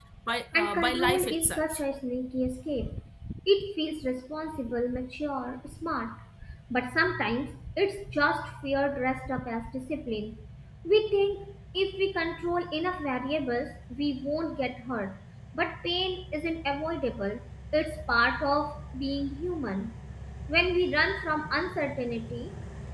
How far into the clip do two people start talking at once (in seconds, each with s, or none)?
0.6 s